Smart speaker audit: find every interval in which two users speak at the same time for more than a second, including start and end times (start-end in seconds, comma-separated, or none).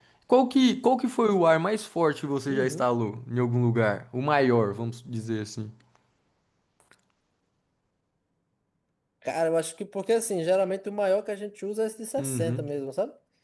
none